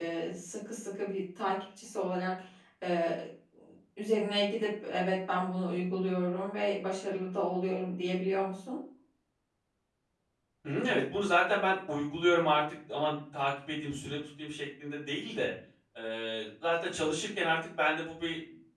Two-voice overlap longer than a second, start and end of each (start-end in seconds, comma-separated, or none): none